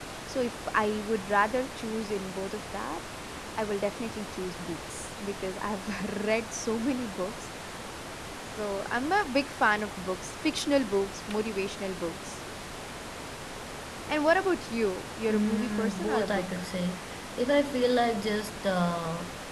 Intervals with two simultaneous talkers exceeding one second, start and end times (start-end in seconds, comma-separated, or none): 15.3-16.6